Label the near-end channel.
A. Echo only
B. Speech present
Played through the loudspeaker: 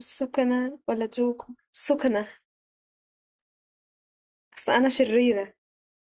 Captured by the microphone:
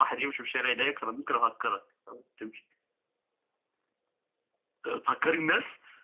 B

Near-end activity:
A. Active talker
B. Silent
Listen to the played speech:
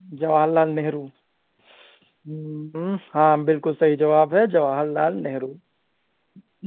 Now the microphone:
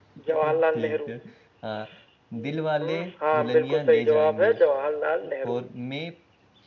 A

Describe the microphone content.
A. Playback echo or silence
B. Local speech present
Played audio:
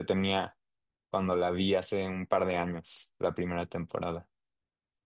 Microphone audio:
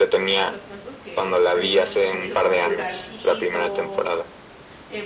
B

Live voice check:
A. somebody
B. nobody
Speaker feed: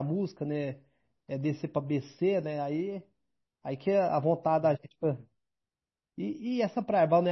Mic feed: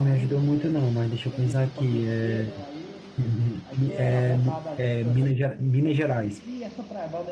A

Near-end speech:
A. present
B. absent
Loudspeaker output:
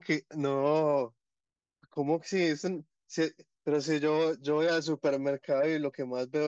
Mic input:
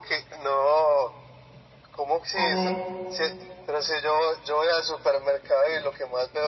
A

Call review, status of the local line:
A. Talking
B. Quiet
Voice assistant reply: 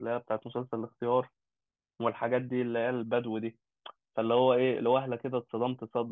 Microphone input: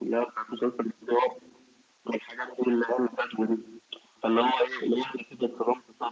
B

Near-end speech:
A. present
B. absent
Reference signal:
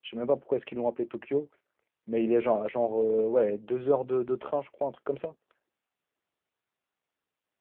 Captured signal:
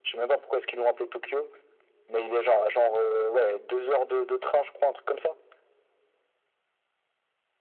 B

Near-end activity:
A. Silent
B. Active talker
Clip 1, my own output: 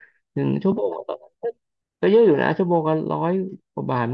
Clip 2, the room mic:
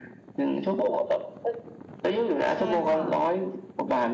B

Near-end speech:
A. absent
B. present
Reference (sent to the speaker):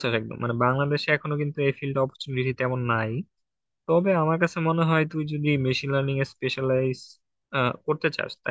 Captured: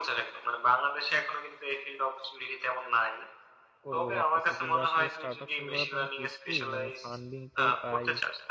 B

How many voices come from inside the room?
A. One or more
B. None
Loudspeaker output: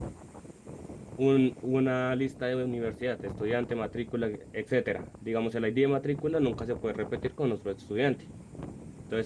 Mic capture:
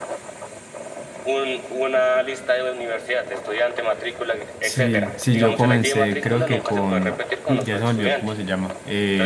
A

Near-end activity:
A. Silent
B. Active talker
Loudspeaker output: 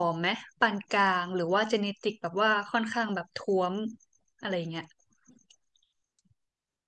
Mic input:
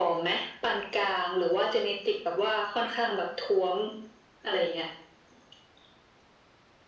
A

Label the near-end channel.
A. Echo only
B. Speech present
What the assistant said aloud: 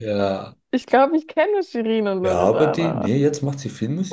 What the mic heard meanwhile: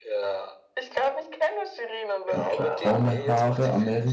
B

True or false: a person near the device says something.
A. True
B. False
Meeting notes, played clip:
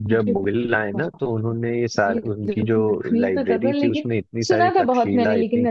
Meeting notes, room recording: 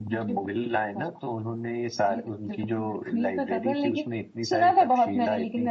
B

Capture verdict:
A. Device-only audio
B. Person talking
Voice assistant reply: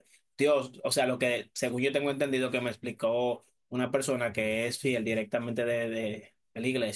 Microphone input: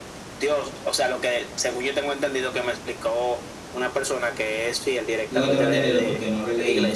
B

